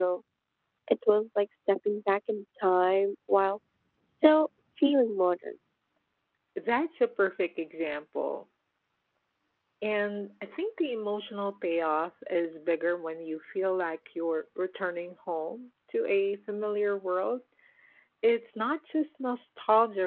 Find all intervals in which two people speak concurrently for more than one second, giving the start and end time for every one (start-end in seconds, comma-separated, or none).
none